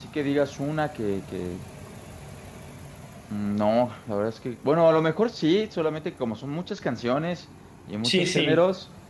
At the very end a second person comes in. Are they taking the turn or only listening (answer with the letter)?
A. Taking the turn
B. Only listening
B